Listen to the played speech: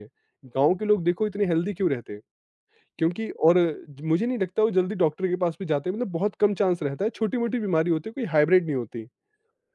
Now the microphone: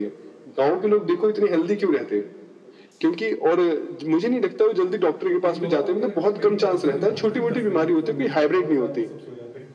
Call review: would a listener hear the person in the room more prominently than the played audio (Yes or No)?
No